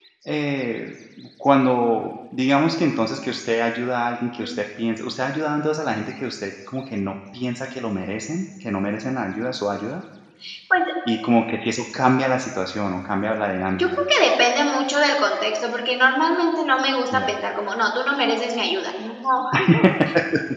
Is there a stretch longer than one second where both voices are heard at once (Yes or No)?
No